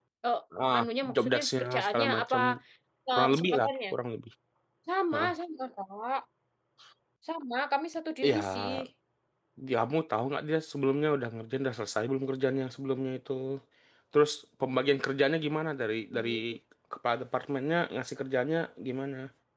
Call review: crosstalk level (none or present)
present